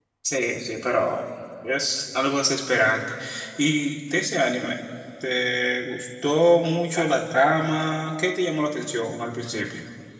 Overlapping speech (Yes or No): No